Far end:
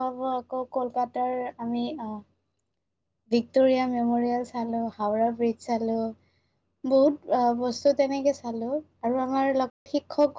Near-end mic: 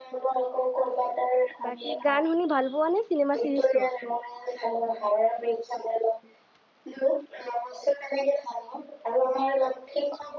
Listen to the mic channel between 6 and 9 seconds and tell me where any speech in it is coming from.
echo only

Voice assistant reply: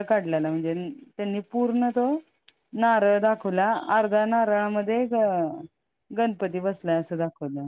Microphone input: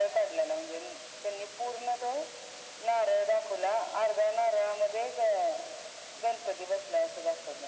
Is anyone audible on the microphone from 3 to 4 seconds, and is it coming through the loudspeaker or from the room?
echo only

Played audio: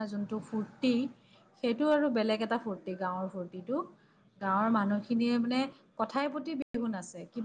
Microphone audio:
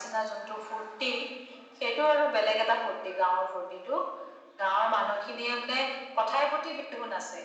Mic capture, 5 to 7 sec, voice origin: echo only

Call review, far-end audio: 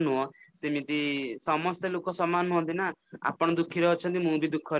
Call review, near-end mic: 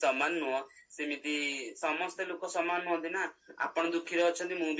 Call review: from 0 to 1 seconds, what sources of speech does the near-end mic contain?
echo only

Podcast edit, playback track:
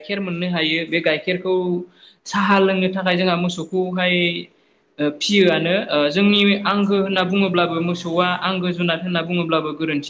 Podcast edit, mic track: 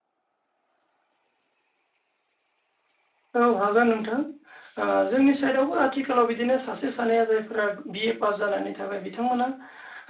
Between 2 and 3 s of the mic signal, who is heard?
neither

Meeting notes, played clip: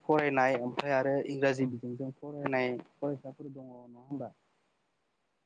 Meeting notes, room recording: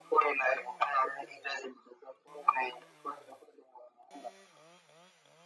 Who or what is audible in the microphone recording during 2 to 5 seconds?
echo only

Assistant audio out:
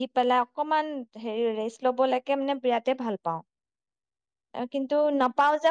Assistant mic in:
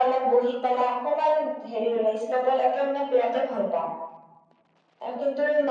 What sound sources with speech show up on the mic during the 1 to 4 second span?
echo only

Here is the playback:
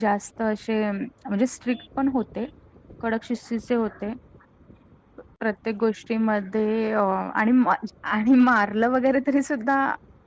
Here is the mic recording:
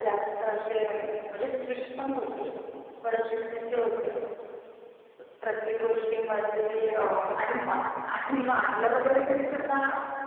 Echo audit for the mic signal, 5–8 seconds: echo only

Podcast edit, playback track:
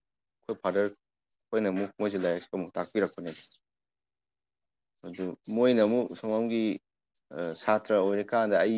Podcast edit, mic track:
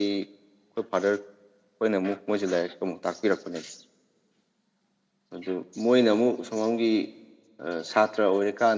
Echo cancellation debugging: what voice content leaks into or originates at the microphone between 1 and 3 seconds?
echo only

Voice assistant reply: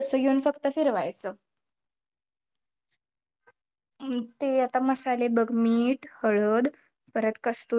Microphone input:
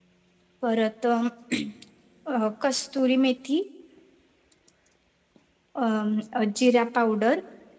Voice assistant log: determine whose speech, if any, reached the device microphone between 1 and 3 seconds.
user only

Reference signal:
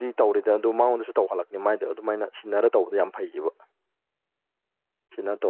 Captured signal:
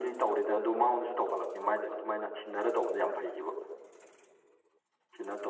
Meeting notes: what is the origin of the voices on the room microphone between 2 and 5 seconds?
echo only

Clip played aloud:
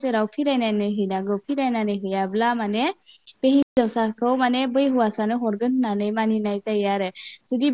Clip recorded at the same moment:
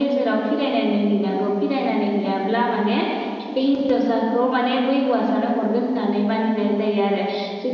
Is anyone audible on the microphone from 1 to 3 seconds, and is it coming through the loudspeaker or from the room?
echo only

